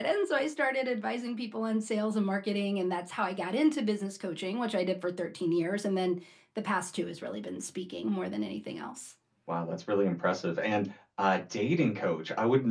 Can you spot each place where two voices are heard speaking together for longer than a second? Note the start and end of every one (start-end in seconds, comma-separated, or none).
none